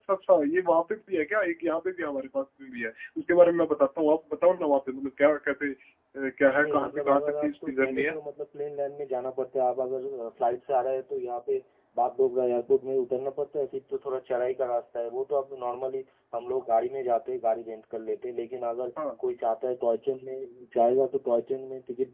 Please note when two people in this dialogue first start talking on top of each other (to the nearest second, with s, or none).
6 s